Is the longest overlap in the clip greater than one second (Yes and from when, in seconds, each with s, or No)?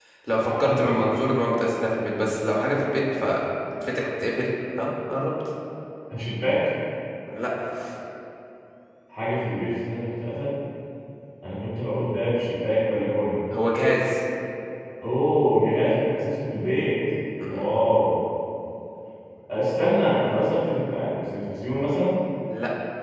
No